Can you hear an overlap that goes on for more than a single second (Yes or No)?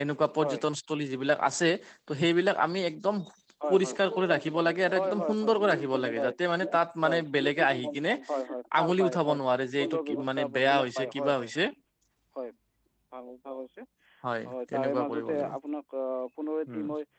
Yes